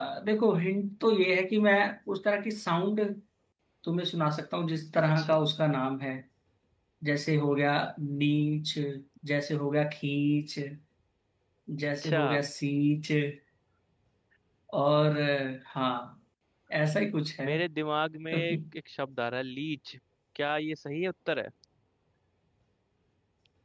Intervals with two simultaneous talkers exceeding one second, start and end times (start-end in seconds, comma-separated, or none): none